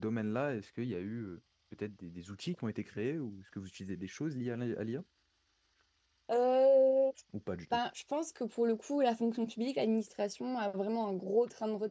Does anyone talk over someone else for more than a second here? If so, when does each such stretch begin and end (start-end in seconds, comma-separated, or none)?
none